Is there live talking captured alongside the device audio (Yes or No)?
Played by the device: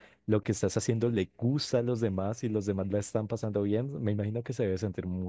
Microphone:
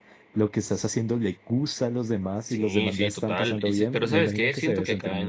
Yes